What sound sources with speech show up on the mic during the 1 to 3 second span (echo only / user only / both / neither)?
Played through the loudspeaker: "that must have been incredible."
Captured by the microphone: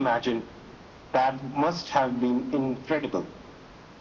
echo only